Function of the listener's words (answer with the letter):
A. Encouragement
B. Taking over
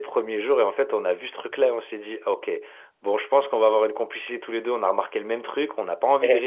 A